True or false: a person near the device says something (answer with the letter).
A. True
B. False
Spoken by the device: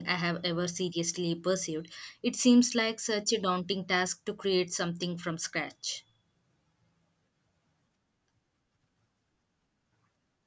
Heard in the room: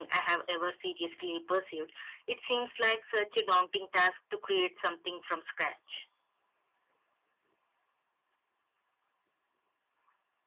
B